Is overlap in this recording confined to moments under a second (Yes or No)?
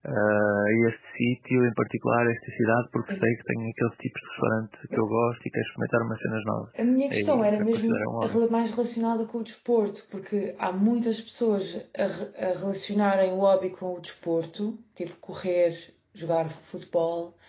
No